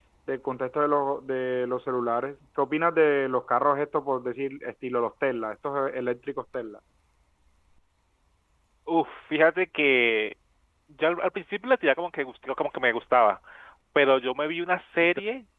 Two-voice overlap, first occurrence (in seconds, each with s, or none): none